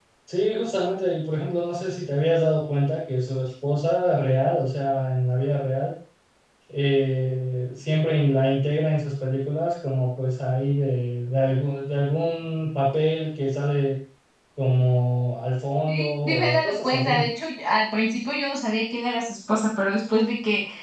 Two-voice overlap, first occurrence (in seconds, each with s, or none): 15.9 s